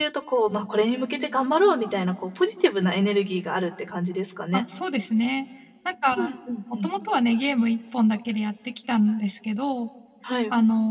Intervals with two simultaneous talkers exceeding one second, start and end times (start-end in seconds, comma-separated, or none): none